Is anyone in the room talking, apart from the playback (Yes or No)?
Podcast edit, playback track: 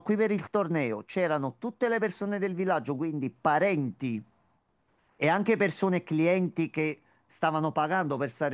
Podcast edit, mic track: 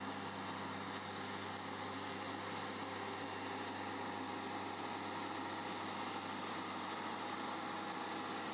No